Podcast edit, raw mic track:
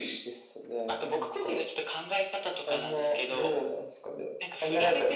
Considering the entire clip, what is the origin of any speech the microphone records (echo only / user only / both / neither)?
echo only